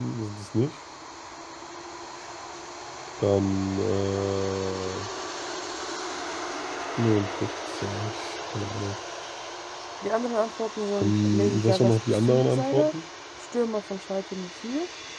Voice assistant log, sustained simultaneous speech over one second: present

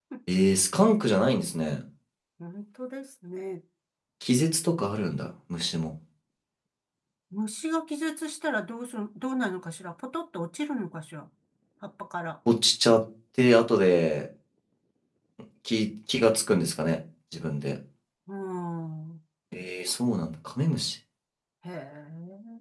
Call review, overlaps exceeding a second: none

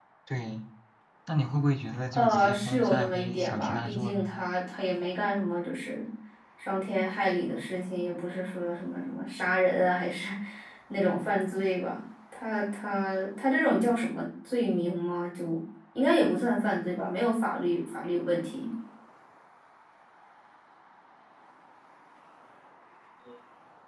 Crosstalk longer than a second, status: present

